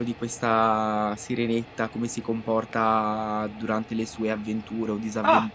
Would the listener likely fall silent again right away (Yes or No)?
Yes